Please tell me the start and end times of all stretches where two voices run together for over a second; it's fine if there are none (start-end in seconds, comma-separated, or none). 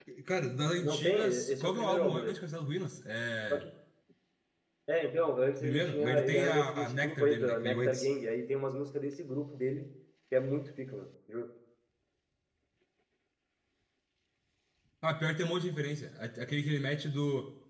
0.8-2.4, 5.6-8.1